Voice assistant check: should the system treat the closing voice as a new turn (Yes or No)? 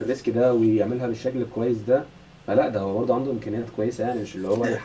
Yes